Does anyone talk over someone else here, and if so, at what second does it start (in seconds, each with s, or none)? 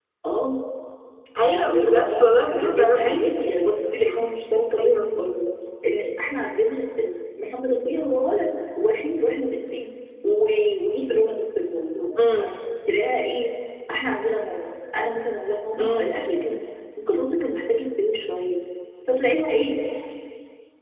1.4 s